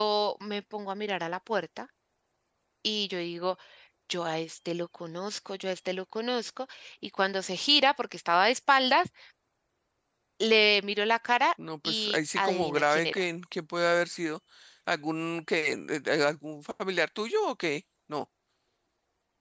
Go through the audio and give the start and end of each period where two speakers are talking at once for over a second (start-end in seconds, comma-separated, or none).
11.8-13.2